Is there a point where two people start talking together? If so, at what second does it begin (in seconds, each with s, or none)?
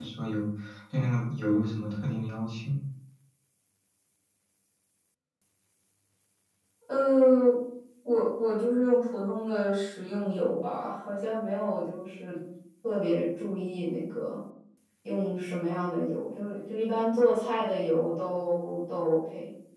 none